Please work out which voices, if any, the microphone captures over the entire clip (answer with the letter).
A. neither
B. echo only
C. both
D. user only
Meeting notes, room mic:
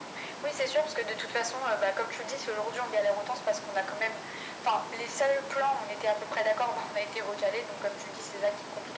B